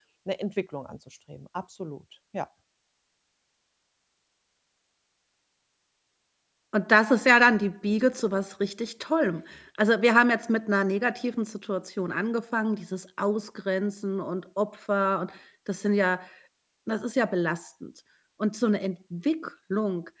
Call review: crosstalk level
none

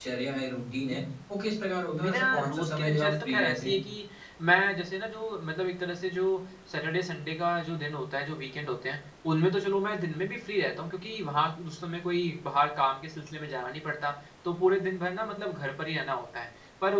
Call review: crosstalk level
present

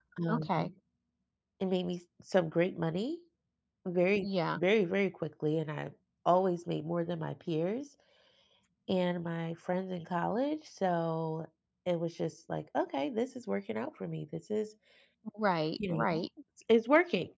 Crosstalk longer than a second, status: none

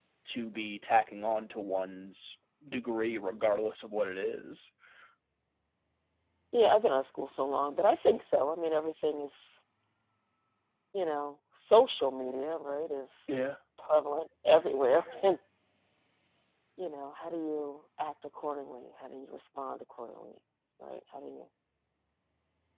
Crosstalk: none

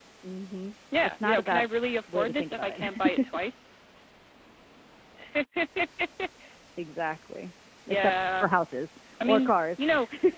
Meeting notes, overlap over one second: present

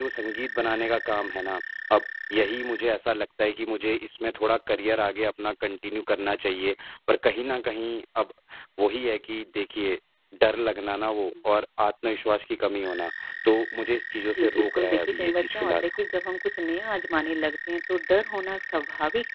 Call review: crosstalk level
present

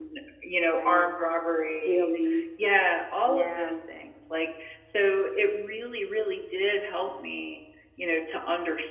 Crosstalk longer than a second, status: none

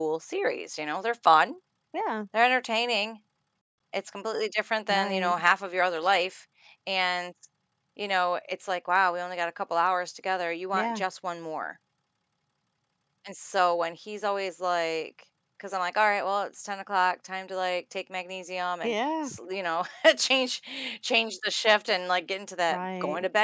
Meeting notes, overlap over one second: none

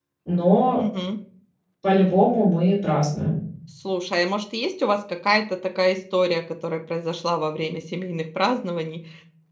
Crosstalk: none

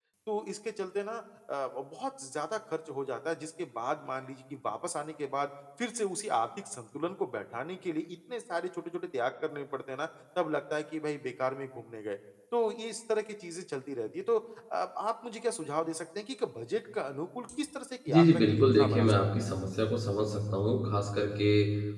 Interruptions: present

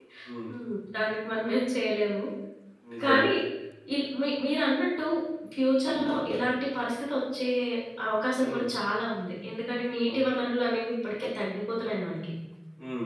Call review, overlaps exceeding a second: none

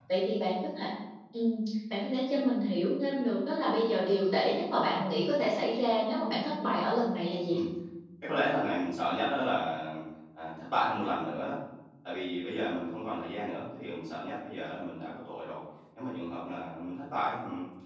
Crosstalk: none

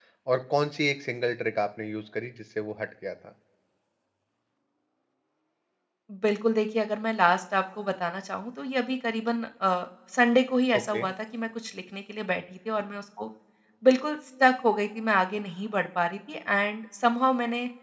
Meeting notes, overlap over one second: none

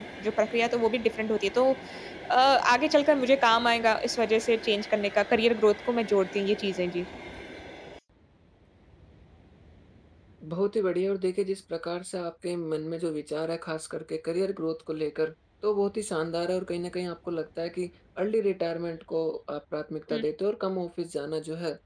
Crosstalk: none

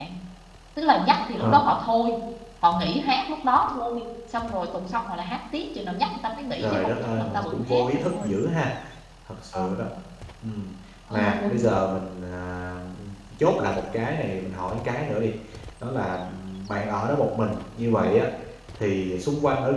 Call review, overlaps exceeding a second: present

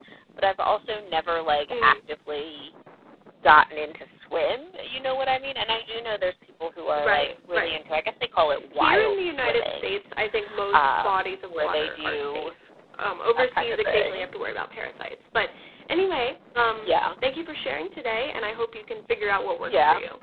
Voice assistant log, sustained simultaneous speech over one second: present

